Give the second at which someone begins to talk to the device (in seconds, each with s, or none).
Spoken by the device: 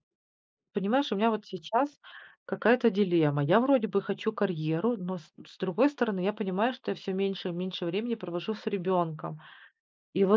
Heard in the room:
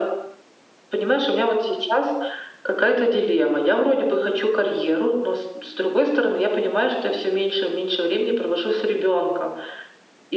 none